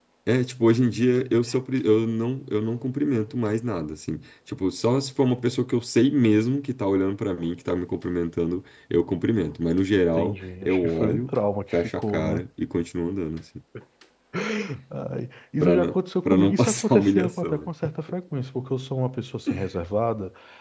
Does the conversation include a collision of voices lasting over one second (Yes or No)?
Yes